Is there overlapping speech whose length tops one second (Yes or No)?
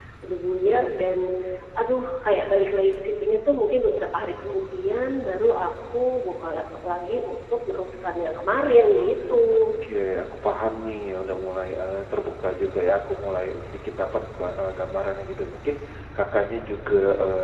No